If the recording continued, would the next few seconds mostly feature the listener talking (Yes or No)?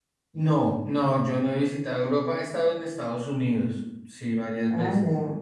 Yes